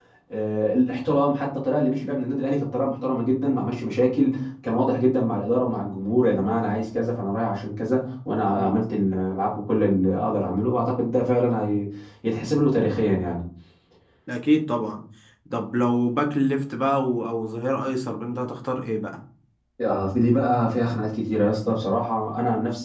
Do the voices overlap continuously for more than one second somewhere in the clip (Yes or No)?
No